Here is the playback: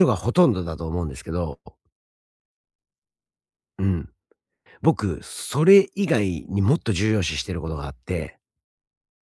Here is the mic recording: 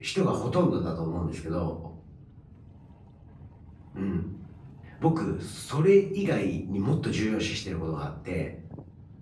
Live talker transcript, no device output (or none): none